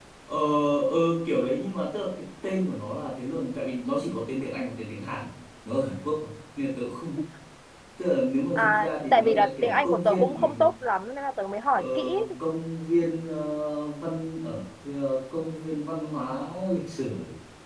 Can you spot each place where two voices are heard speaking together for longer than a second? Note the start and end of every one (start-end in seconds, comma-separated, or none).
8.6-10.5